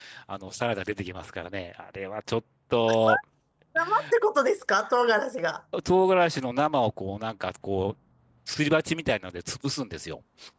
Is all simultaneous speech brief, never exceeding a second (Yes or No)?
Yes